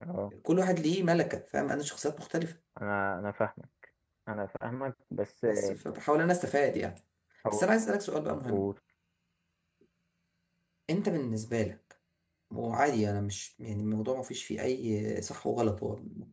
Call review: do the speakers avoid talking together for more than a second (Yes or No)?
Yes